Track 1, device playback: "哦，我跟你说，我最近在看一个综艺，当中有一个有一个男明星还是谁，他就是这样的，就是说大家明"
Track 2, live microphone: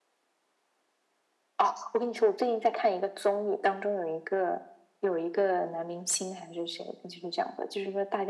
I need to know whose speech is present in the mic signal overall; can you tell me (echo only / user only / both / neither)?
echo only